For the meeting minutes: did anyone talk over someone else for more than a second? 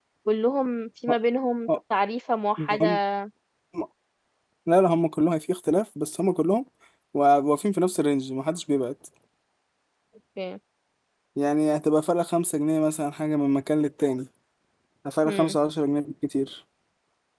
No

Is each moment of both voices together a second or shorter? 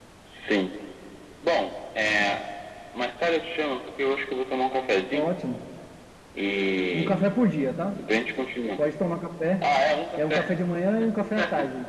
Yes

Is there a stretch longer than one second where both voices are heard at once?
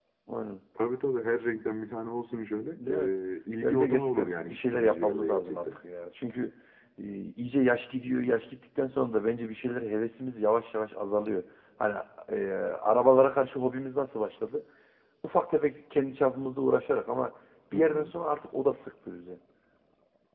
Yes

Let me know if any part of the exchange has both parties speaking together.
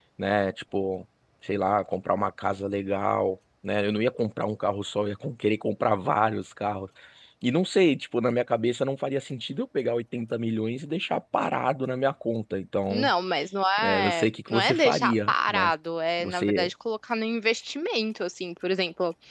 Yes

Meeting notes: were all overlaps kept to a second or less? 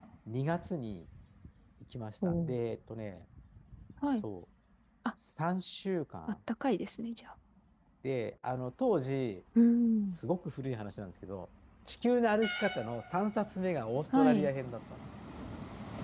Yes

